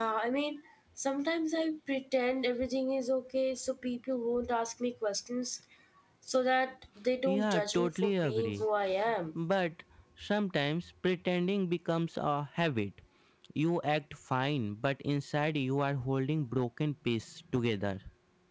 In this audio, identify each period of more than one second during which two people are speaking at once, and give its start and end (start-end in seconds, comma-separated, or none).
7.3-8.6